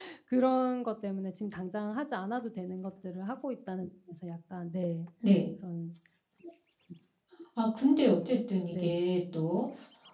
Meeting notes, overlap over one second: none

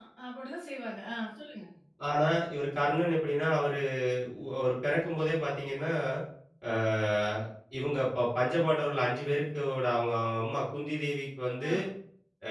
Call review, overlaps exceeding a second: none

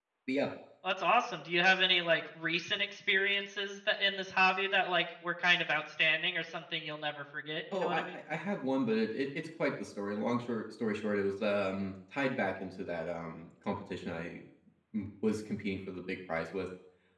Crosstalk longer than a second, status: none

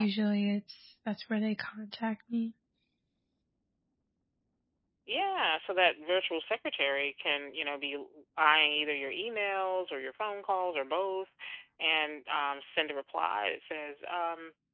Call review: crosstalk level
none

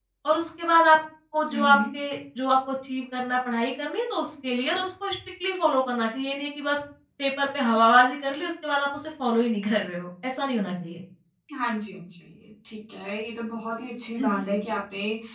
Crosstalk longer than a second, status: none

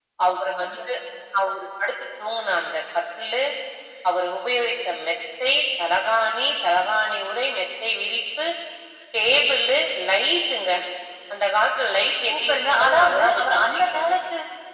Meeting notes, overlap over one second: present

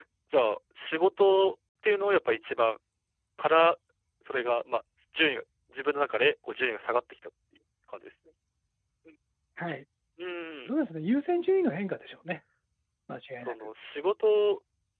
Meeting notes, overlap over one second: none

